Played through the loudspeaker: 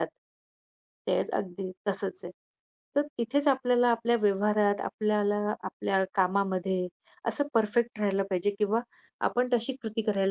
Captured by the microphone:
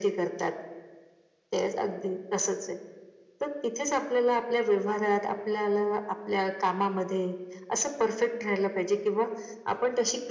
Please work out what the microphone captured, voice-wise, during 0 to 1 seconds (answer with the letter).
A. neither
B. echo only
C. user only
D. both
B